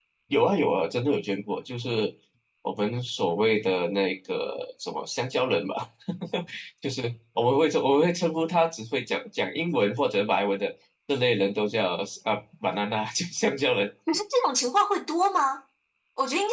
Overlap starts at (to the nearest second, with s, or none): none